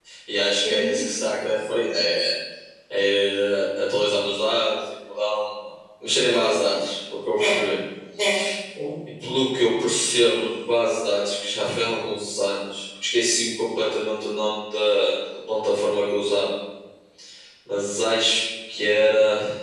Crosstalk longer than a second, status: none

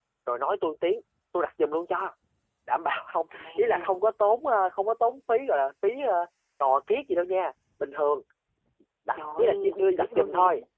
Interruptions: present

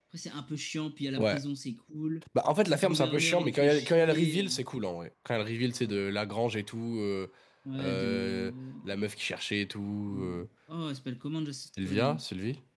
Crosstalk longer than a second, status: present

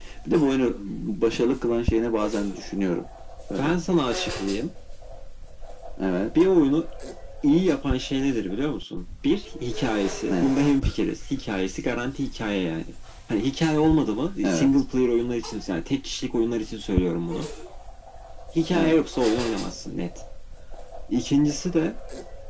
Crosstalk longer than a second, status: none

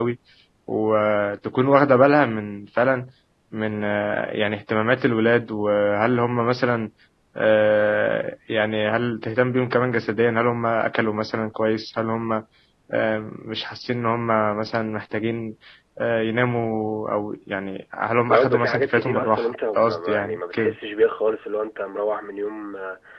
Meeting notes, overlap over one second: present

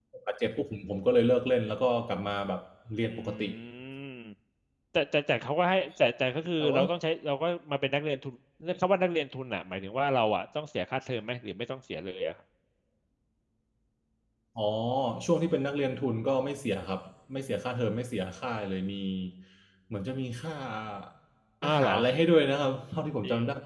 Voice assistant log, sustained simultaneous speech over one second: none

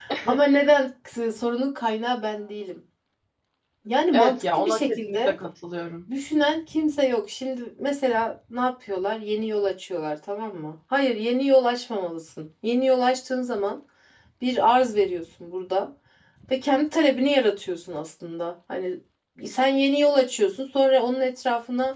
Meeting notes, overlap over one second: present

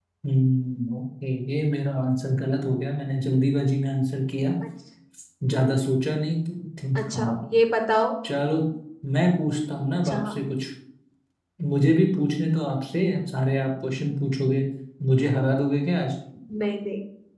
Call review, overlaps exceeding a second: none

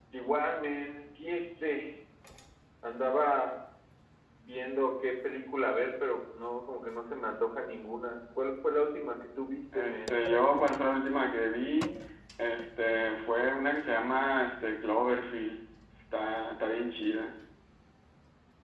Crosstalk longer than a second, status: none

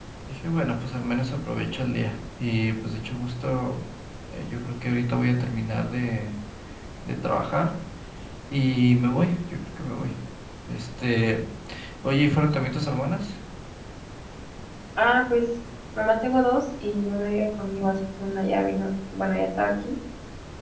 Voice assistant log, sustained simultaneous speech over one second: none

